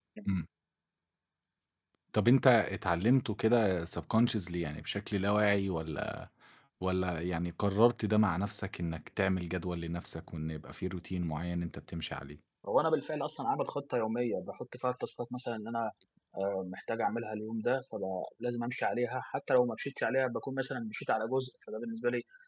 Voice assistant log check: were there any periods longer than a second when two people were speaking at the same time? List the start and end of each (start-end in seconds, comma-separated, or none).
none